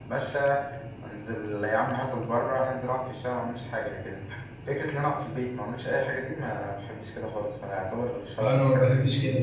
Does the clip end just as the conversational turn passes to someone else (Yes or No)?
Yes